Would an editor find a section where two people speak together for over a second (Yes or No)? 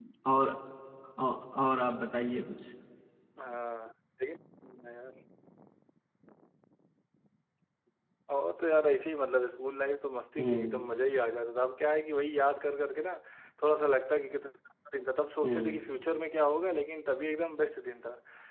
No